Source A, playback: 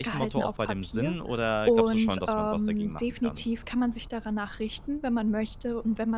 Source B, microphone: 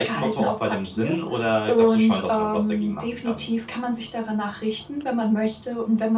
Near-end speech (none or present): none